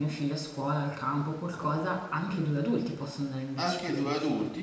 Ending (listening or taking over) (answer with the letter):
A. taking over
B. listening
A